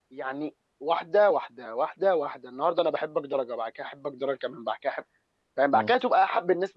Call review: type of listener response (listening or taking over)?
listening